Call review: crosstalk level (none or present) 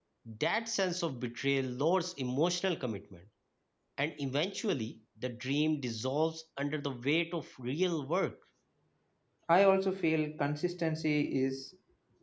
none